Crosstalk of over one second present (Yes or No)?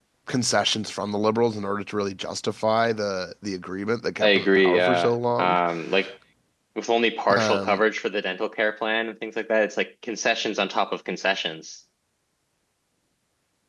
Yes